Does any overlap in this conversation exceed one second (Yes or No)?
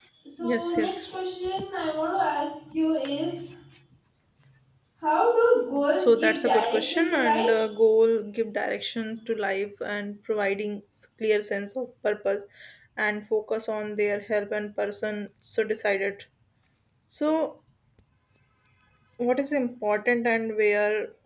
Yes